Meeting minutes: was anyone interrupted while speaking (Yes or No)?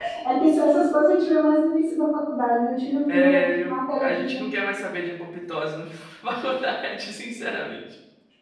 Yes